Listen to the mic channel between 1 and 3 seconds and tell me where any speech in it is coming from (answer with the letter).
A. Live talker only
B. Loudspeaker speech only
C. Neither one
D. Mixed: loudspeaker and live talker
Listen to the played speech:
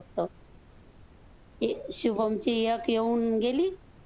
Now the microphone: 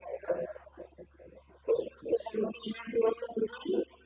B